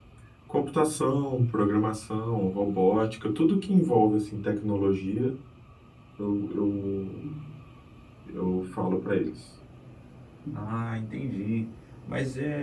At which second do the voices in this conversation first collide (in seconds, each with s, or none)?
none